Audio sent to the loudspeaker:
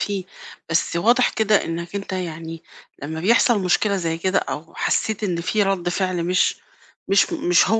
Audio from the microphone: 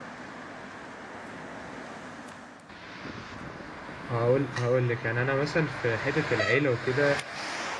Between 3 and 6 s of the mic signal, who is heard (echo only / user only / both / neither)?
user only